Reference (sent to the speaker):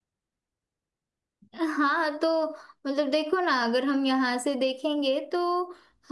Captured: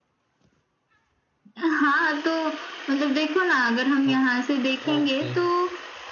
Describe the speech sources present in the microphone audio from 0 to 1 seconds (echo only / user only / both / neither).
neither